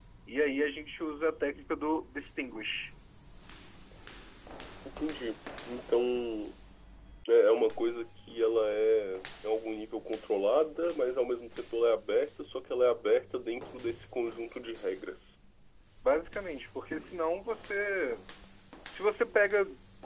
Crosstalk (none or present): none